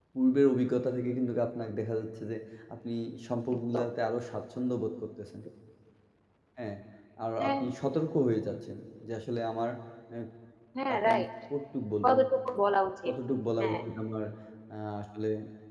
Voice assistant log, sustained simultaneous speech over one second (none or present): none